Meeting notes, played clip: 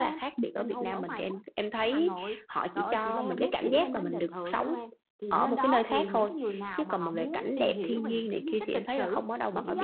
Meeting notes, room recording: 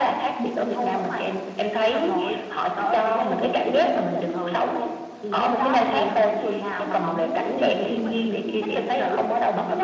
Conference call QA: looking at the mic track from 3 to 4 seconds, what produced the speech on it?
echo only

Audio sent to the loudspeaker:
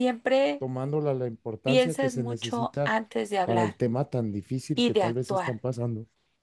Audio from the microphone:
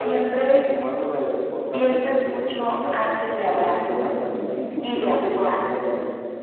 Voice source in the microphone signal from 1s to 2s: echo only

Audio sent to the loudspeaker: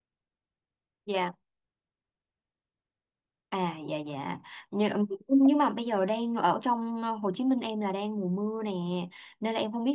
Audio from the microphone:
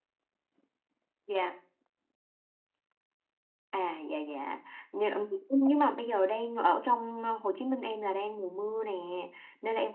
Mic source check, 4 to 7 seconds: echo only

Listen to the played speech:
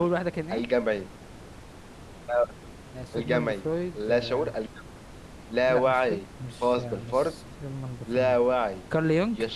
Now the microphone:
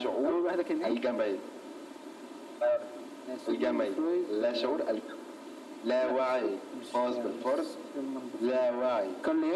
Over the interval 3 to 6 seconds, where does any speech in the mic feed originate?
echo only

